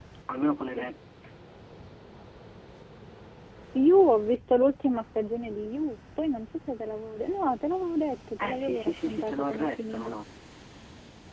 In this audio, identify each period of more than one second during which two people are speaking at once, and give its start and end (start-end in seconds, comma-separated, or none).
8.4-10.2